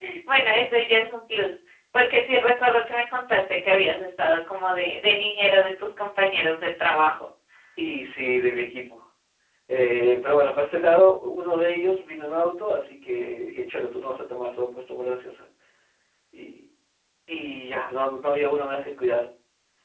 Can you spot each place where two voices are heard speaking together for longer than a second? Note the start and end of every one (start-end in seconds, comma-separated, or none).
none